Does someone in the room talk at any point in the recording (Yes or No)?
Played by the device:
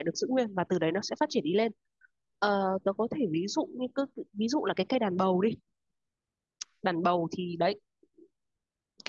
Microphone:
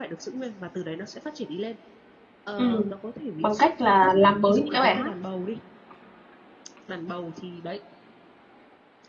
Yes